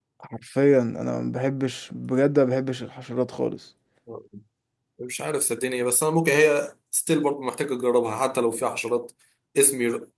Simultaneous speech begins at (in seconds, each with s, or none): none